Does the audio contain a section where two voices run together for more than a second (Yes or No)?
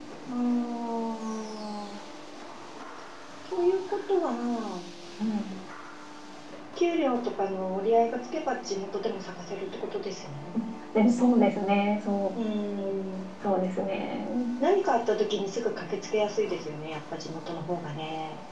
No